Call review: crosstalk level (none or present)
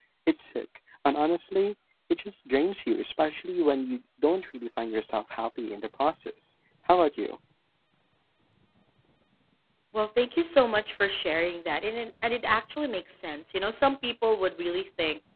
none